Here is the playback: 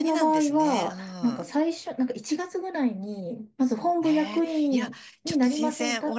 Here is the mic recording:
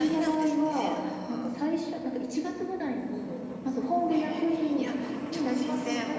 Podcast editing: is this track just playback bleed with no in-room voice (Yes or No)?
Yes